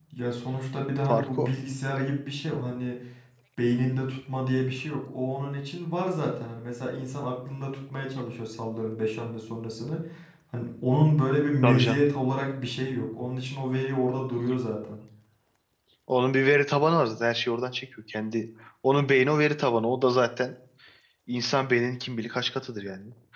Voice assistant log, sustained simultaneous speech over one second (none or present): none